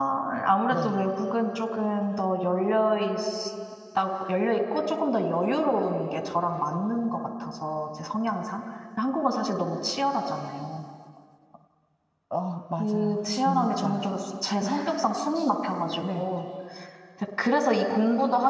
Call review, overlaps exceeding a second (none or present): present